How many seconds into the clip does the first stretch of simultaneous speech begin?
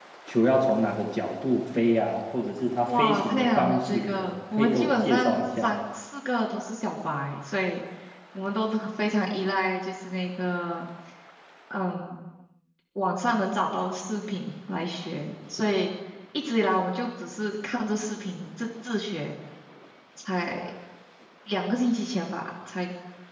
3 s

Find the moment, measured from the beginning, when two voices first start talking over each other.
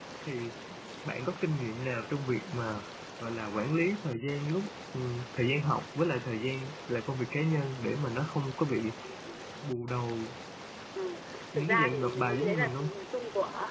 12 s

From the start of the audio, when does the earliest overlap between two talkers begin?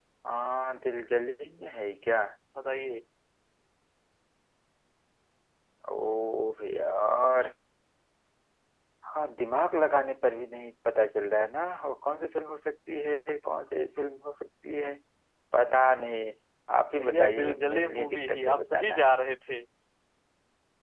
17 s

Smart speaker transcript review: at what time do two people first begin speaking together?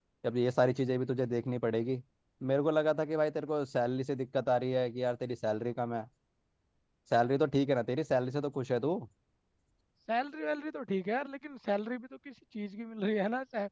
none

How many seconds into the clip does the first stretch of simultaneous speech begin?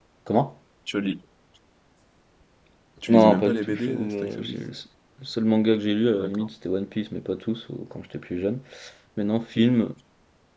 3 s

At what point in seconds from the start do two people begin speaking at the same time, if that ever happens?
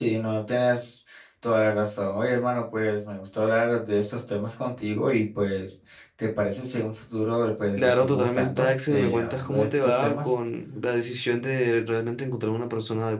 8 s

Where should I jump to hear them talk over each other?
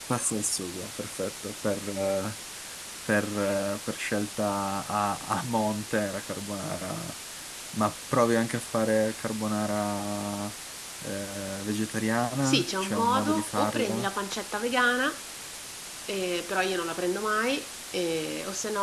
12 s

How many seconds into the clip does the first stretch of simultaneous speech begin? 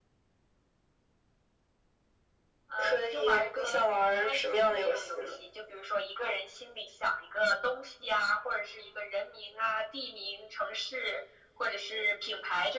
3 s

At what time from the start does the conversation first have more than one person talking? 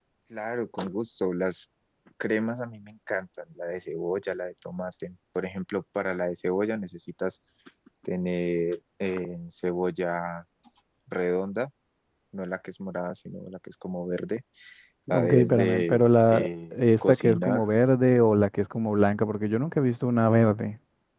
15 s

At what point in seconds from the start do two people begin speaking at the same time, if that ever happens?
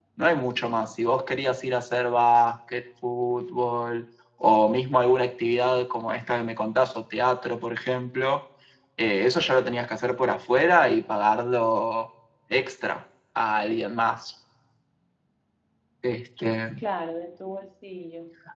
none

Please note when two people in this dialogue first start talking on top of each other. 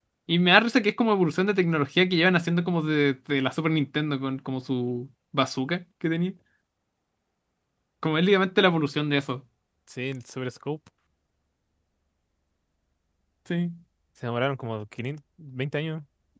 none

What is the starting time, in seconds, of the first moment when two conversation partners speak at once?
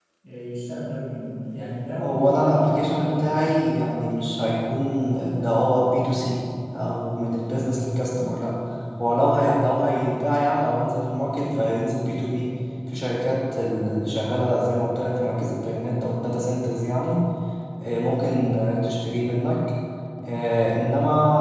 2 s

